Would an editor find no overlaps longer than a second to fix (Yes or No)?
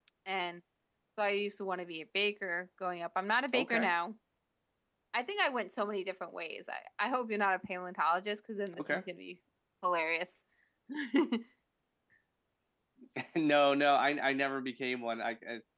Yes